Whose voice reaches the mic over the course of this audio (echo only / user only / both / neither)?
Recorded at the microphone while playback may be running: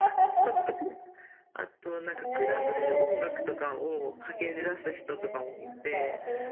both